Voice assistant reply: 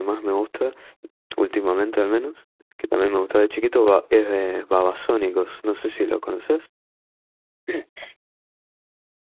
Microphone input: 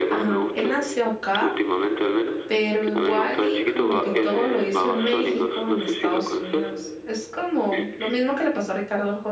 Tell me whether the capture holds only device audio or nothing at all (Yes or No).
No